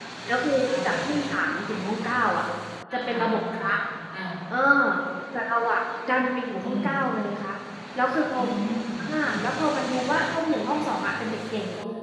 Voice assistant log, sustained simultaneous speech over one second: none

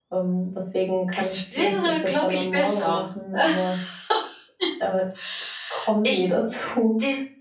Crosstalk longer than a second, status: present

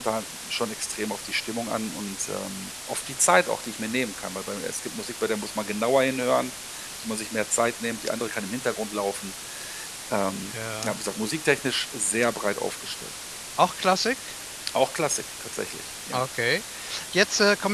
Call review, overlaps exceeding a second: none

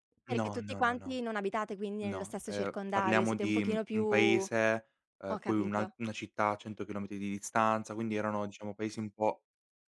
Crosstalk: present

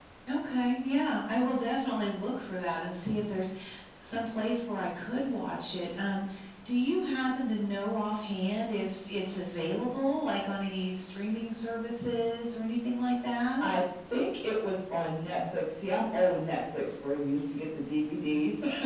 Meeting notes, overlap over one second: none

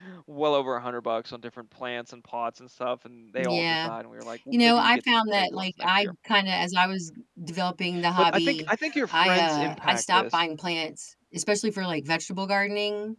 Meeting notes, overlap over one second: present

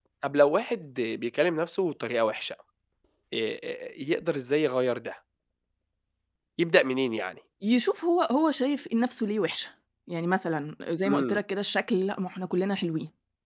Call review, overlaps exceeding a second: none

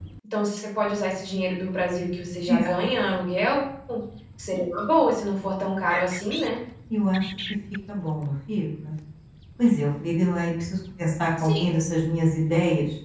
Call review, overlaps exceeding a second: none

